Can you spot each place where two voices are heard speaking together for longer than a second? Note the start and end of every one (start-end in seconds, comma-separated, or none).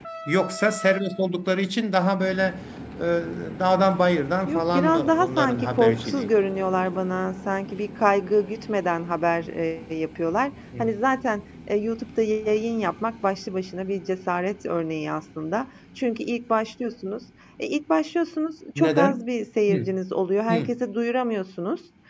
4.5-6.3